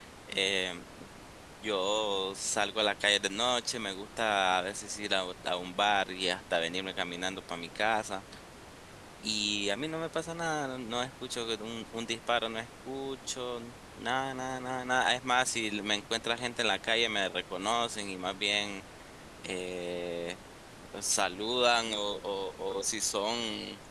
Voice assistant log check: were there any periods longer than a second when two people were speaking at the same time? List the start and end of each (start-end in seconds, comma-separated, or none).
none